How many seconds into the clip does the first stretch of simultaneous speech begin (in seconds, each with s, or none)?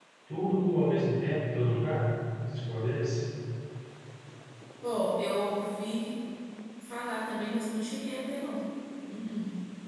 none